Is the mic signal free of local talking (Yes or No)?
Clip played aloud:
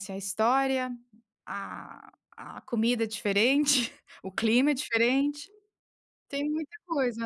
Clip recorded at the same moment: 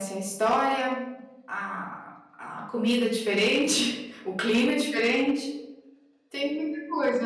Yes